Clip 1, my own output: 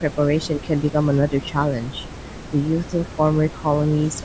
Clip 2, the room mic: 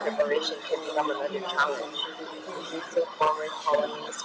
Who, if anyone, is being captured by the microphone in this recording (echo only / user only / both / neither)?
both